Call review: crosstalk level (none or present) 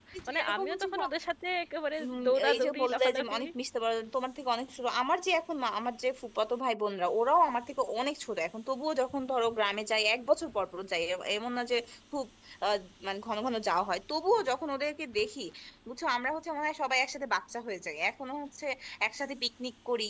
present